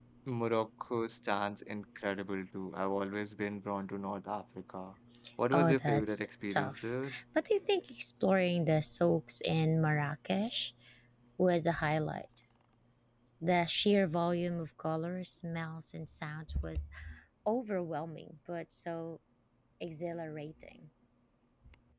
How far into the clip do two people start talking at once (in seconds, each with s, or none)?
5.5 s